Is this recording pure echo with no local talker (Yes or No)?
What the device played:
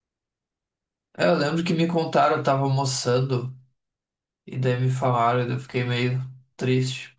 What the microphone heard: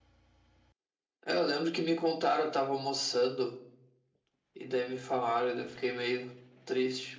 Yes